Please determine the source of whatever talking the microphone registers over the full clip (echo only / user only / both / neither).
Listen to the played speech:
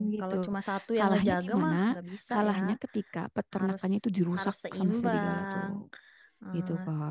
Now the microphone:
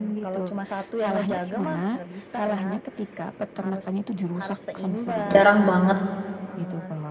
both